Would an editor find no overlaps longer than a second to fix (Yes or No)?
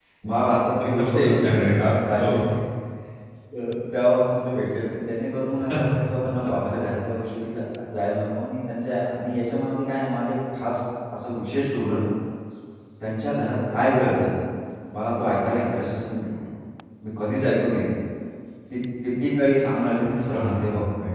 No